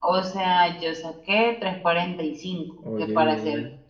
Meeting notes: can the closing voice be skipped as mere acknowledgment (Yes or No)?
Yes